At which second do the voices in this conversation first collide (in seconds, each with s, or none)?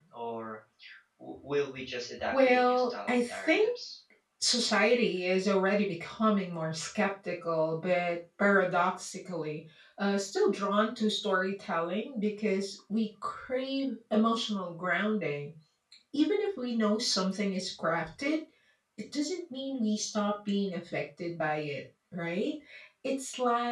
2.3 s